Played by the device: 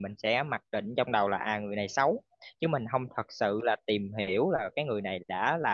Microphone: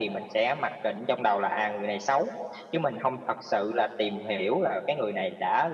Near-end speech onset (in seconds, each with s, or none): none